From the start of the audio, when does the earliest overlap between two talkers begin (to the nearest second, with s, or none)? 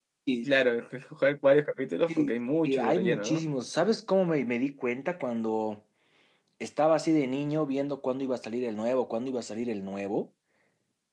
2 s